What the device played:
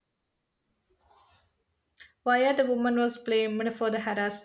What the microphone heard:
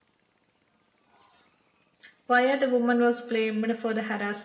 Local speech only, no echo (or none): none